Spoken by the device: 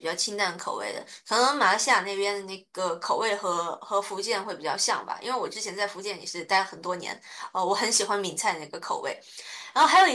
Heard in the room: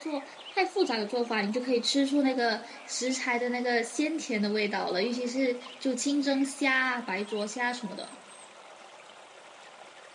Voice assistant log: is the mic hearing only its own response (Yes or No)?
No